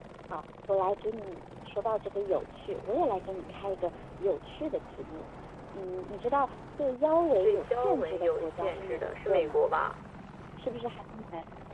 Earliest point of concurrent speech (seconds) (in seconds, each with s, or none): 7.4 s